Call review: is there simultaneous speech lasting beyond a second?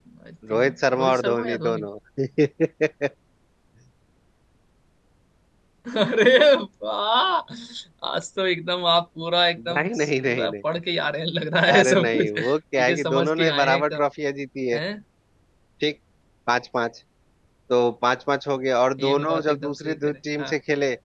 Yes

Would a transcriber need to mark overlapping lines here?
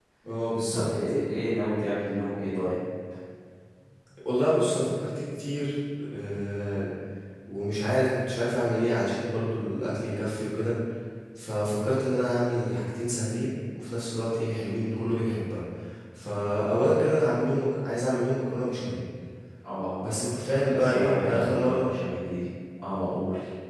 Yes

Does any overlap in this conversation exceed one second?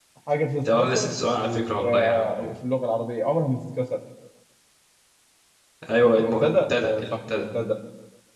Yes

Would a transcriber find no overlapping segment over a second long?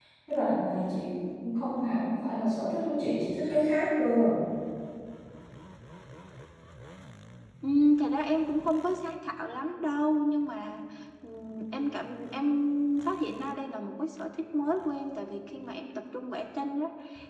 Yes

